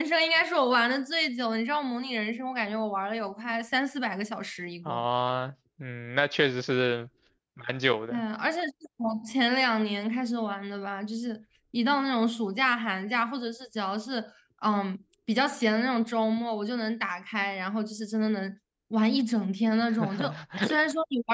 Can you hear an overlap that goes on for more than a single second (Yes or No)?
No